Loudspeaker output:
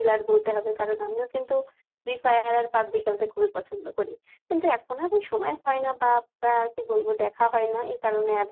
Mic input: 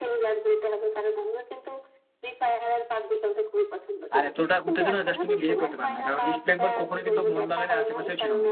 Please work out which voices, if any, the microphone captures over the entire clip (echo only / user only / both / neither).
both